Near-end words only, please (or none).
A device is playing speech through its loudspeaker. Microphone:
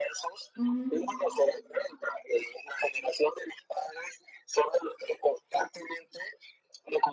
ujú.